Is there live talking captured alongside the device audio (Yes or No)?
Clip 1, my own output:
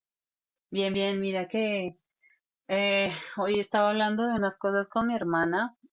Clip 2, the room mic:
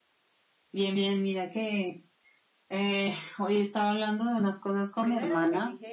Yes